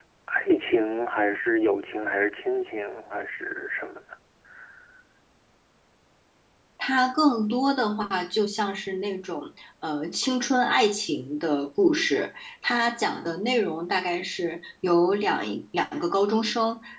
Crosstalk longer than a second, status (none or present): none